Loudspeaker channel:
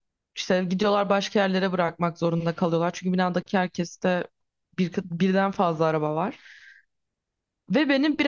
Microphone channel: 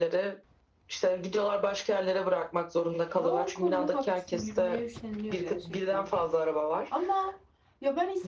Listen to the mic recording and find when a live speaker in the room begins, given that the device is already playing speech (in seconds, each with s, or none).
3.1 s